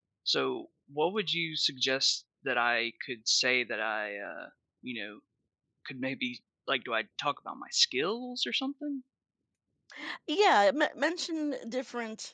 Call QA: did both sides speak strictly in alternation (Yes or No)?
Yes